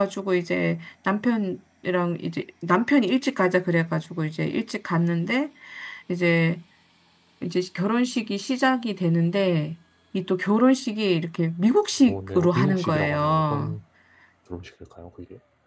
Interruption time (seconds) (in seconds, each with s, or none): 12.0 s